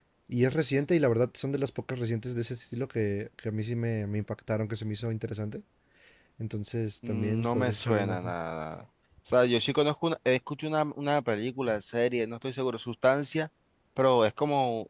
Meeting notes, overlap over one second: present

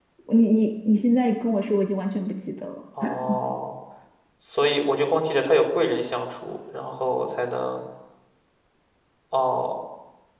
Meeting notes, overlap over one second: none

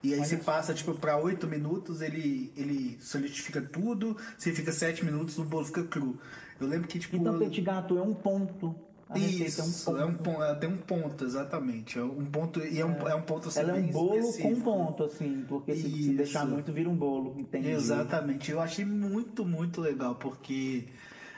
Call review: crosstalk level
present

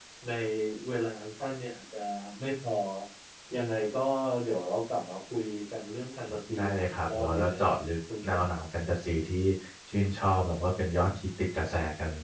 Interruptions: present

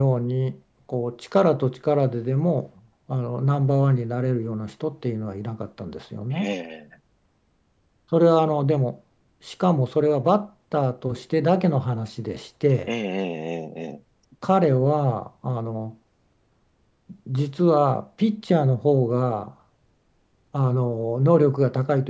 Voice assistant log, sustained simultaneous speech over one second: none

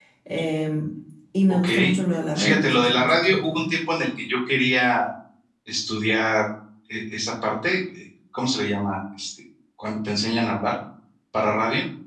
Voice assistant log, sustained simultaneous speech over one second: present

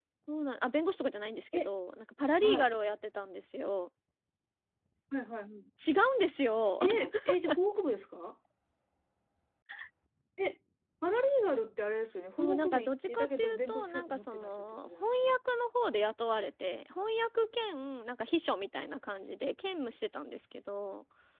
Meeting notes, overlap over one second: present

